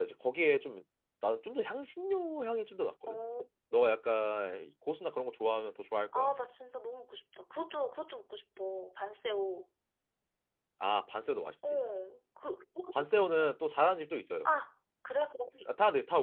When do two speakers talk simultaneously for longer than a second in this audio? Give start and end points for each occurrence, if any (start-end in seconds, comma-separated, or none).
none